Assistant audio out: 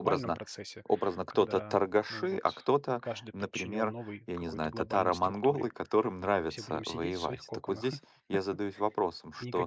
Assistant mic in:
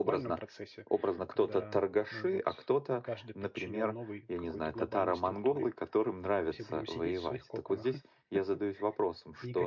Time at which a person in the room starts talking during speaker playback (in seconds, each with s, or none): none